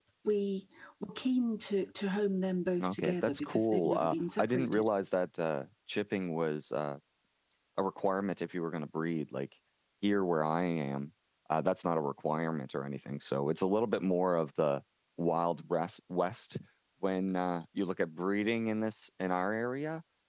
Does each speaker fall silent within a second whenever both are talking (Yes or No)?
No